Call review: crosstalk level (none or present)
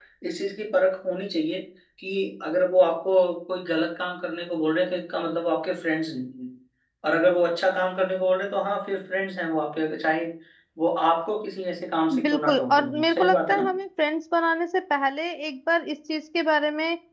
present